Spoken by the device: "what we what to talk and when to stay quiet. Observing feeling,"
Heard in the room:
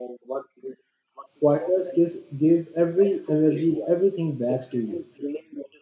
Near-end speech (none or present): present